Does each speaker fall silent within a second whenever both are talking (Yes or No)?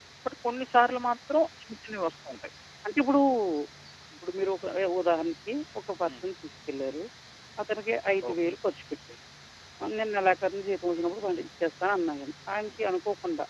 Yes